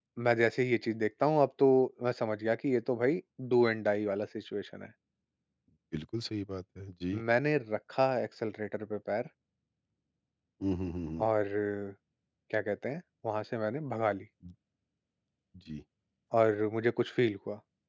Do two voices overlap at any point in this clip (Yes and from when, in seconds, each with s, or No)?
No